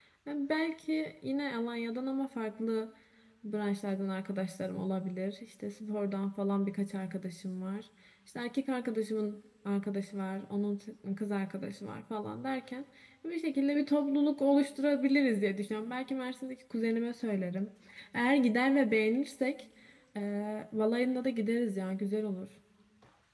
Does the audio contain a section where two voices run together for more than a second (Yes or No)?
No